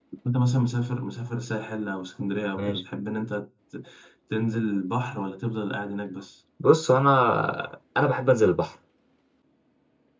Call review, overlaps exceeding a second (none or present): none